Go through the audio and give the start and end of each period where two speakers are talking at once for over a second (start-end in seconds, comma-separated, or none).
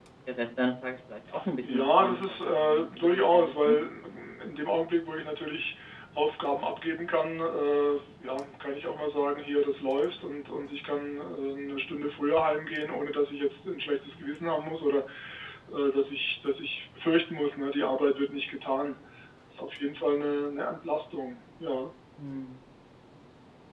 1.7-3.8